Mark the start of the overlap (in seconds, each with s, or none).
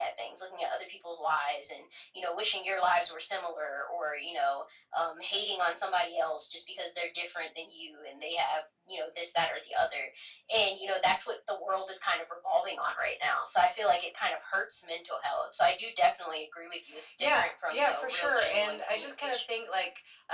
17.2 s